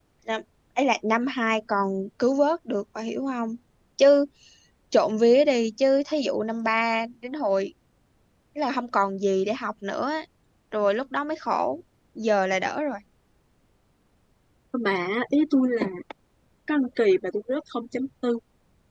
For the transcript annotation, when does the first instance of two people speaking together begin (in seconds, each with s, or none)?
none